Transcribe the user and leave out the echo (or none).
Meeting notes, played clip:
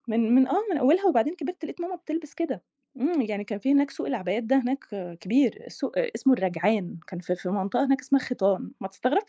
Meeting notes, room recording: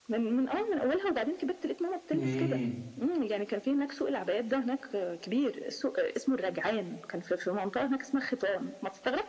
إمم.